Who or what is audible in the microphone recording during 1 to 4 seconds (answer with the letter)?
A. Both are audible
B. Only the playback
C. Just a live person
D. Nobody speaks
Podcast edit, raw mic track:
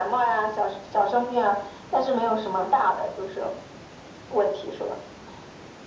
B